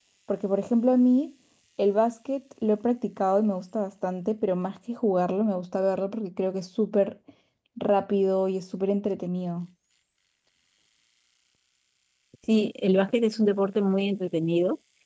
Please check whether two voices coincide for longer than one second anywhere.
No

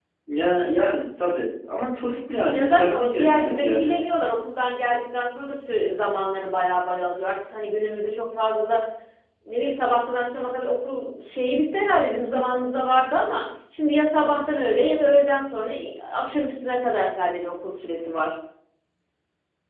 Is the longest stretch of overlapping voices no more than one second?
No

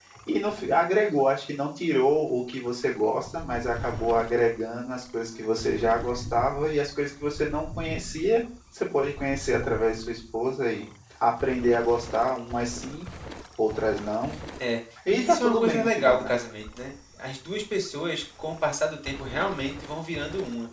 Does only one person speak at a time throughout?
No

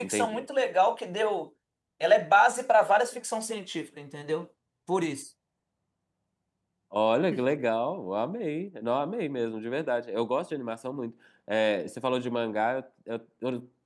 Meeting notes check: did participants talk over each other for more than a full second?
No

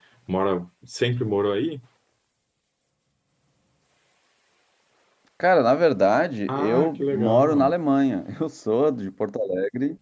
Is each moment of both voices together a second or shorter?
No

